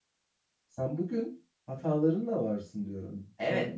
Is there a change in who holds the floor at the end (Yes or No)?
Yes